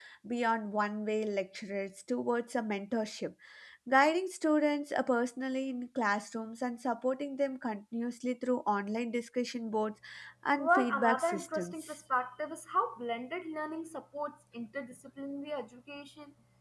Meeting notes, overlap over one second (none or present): present